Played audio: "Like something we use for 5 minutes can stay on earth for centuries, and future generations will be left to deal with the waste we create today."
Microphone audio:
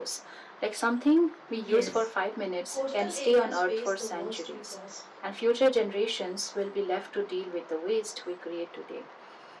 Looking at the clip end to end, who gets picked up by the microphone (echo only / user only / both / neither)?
both